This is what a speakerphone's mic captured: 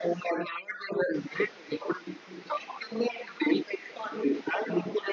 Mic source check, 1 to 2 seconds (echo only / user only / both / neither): echo only